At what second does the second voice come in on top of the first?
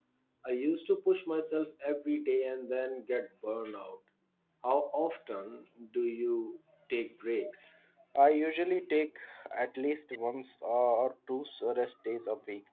none

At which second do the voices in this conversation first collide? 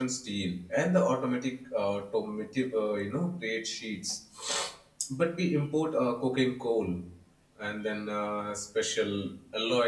none

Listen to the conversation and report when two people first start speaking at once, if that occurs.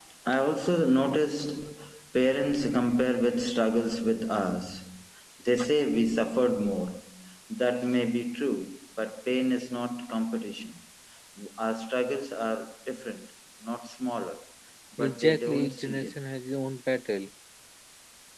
15.0 s

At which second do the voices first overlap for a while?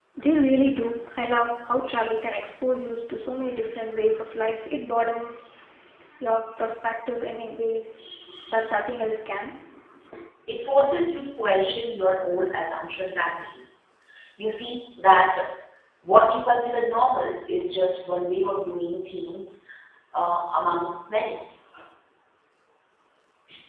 none

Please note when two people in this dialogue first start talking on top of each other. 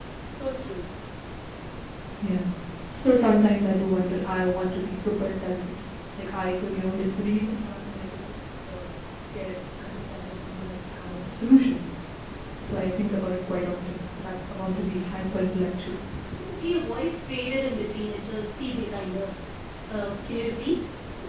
none

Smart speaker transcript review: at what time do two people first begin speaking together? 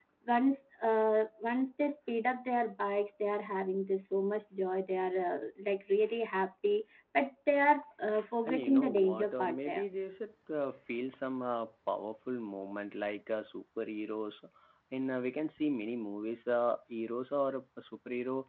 8.5 s

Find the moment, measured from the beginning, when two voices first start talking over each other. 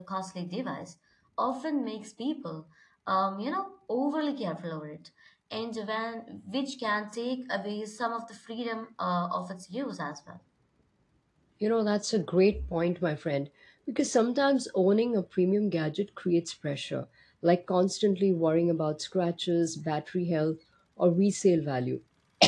none

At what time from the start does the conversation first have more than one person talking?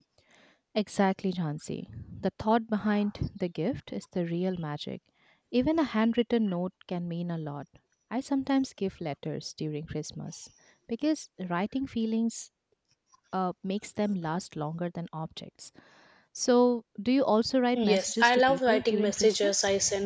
17.8 s

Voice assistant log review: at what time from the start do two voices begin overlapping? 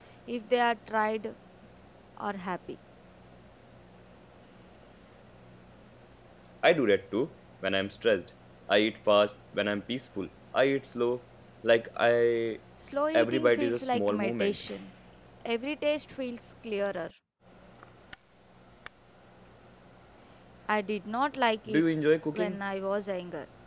13.1 s

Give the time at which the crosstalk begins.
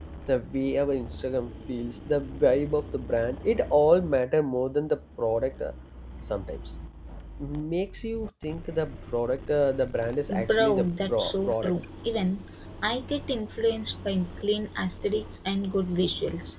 10.3 s

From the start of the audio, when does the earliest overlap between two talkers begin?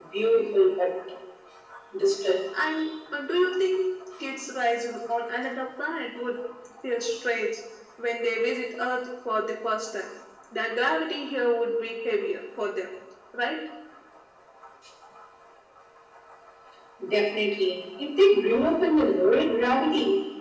none

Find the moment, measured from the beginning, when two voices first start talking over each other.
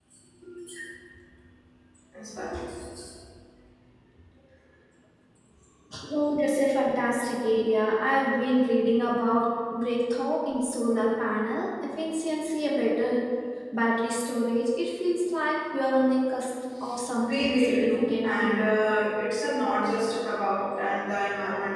17.3 s

